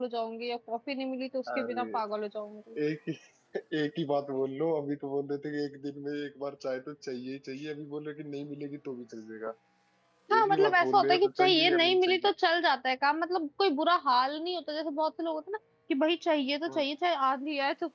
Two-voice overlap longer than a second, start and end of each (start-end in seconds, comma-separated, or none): 10.4-12.3